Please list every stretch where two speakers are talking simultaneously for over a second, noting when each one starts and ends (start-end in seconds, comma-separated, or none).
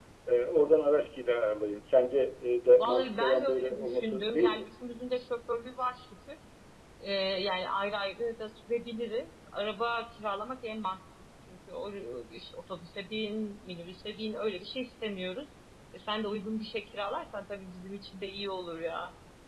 2.8-4.7